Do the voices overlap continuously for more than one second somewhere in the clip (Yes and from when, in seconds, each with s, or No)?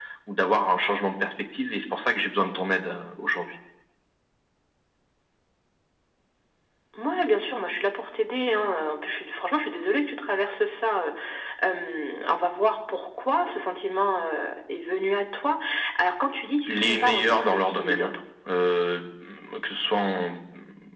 Yes, from 16.7 s